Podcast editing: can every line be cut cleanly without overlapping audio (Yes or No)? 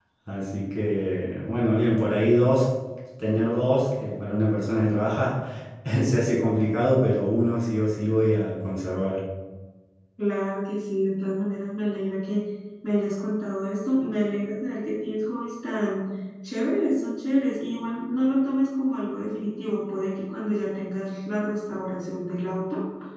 Yes